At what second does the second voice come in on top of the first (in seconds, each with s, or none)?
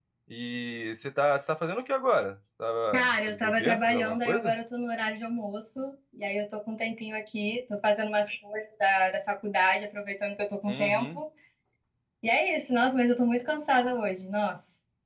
2.9 s